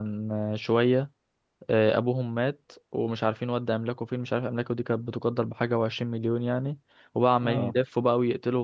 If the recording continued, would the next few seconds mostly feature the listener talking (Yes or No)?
No